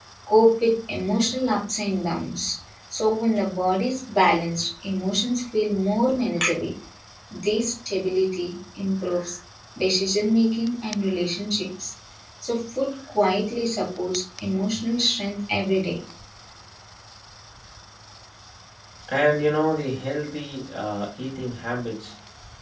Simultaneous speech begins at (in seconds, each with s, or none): none